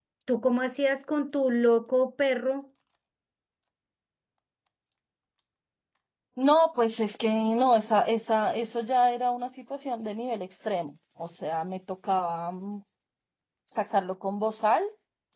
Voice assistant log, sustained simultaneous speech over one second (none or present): none